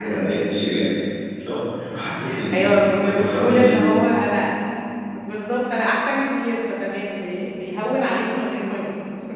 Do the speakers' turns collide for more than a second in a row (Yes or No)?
Yes